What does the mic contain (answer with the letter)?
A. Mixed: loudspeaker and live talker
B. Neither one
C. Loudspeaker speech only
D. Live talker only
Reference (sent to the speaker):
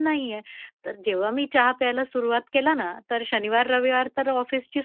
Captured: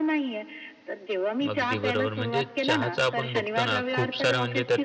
A